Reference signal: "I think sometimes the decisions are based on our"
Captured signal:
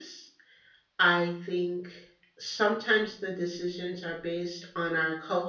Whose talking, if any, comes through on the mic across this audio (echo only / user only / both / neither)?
echo only